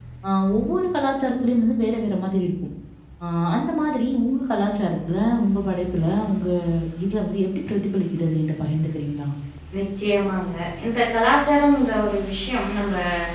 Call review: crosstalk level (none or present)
none